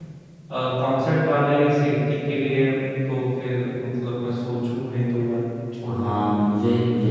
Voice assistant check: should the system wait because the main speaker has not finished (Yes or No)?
No